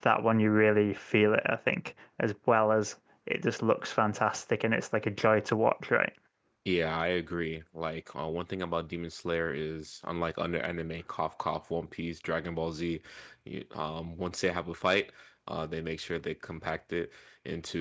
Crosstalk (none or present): none